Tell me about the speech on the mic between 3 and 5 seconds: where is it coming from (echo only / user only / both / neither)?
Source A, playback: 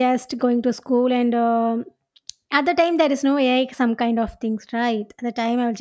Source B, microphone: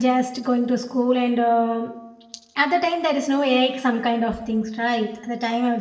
echo only